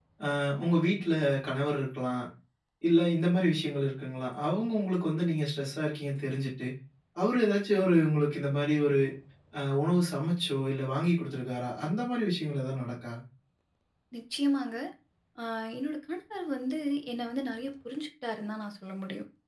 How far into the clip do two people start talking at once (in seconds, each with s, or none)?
none